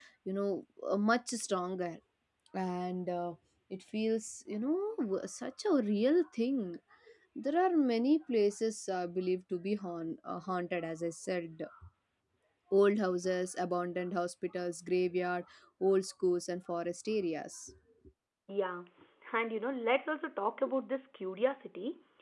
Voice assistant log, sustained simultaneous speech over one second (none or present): none